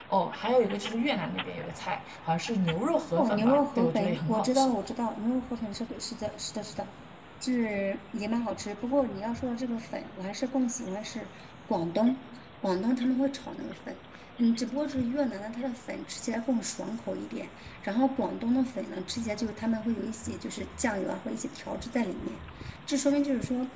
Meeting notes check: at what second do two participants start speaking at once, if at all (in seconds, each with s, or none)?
3.2 s